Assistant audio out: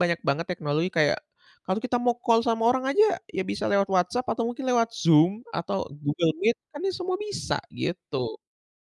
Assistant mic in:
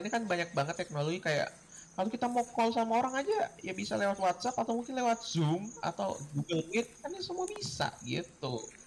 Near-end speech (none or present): none